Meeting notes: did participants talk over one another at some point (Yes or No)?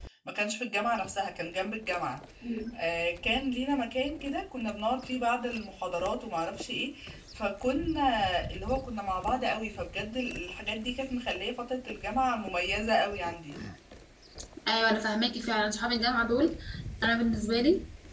No